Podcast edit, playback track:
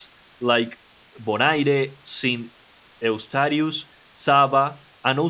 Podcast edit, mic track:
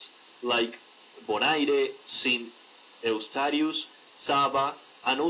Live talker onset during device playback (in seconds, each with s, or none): none